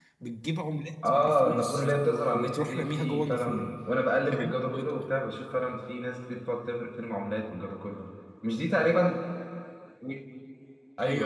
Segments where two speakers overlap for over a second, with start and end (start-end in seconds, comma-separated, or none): 1.0-3.7